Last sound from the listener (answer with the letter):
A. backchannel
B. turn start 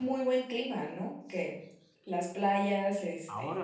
B